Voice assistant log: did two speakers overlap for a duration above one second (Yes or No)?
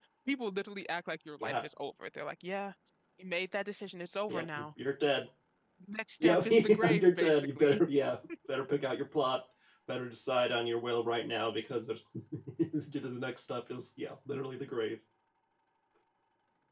Yes